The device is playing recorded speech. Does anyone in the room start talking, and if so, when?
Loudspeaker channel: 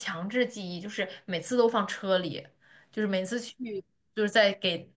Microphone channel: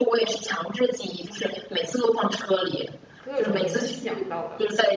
3.2 s

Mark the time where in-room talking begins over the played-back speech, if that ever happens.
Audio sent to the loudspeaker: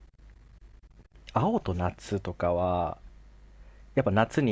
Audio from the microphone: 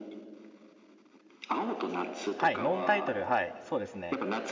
2.4 s

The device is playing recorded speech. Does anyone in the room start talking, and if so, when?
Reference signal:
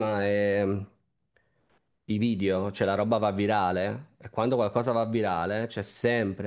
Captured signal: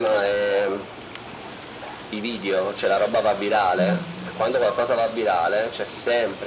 3.8 s

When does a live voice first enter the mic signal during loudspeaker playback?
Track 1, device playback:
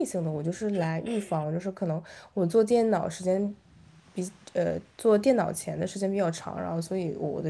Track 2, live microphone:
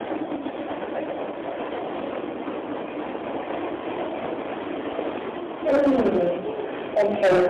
5.6 s

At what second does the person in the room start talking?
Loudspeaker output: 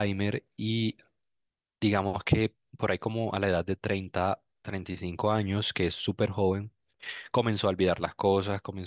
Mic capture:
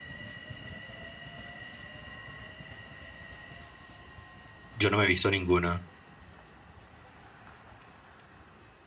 4.7 s

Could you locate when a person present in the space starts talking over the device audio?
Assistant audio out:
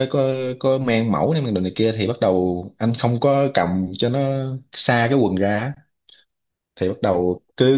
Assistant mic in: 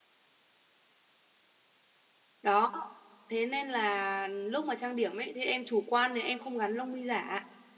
2.4 s

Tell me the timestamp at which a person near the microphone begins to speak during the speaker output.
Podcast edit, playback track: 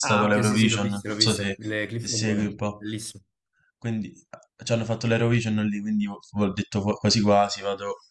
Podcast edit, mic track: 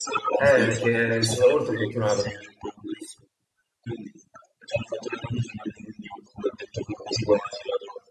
0.4 s

